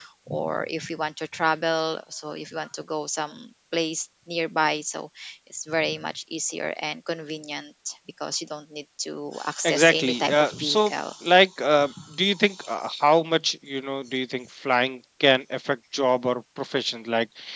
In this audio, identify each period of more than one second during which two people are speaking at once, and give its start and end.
9.6-10.9

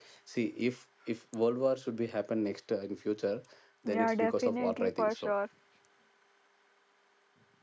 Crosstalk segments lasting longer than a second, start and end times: 3.9-5.3

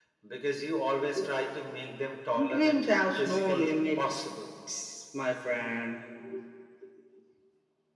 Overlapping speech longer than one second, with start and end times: 2.5-4.0

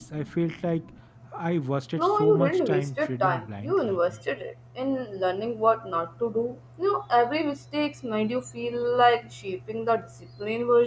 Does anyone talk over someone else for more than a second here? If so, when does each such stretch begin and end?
2.0-4.1

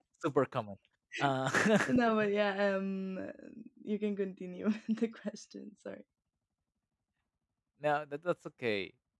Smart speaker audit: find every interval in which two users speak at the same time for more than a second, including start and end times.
none

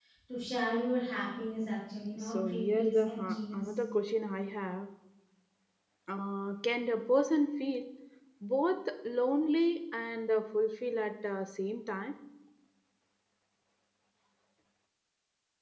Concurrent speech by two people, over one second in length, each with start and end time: 2.2-3.6

